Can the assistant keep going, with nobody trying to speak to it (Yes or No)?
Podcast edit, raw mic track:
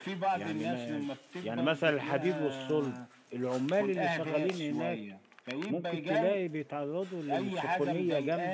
No